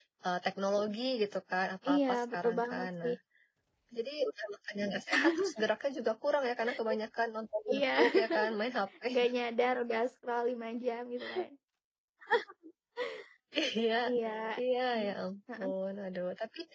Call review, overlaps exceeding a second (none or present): present